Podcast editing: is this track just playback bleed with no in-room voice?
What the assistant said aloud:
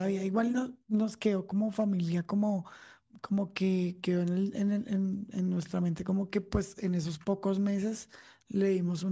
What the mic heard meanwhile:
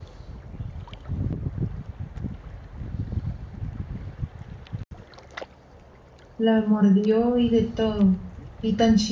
No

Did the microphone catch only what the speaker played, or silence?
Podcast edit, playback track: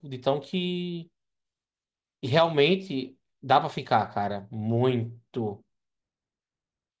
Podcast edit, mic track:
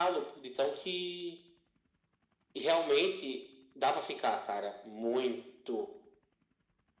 Yes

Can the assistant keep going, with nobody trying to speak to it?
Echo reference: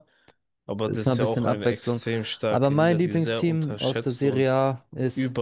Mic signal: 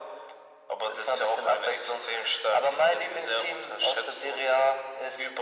Yes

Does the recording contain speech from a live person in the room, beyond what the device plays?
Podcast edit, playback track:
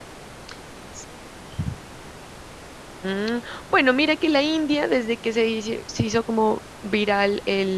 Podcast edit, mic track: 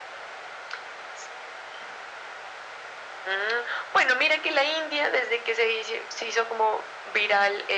No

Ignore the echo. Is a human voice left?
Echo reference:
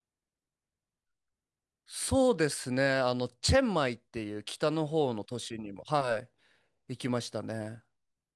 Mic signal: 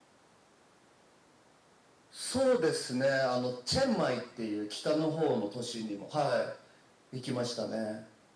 No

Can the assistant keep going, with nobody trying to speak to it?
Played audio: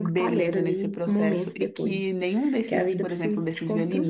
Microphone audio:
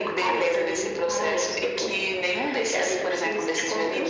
Yes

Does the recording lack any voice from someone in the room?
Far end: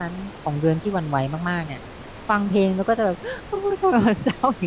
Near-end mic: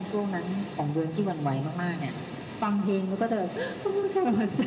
Yes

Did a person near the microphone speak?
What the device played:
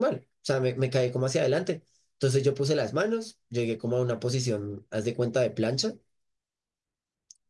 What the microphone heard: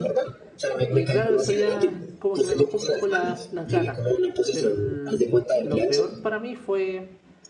Yes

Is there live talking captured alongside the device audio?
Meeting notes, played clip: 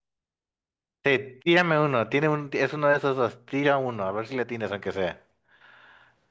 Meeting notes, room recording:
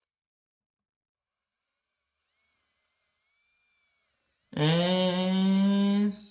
Yes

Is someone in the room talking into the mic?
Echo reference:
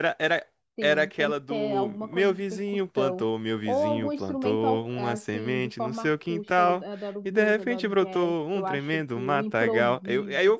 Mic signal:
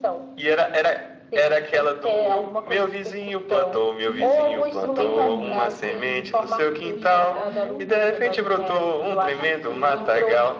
Yes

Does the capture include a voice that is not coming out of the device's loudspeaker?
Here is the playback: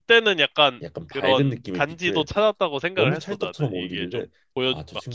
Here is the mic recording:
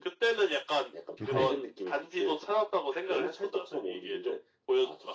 Yes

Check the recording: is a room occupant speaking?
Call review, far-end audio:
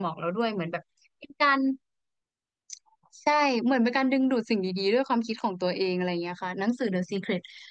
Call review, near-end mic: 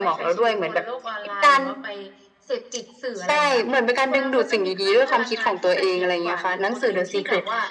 Yes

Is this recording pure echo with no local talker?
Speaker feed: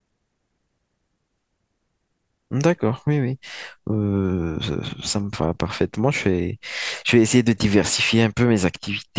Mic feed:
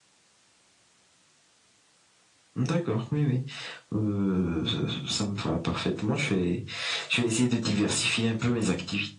Yes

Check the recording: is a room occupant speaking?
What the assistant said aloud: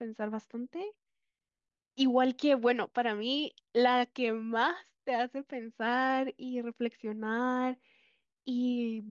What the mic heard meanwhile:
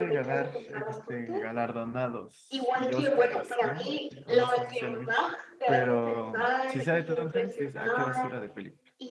Yes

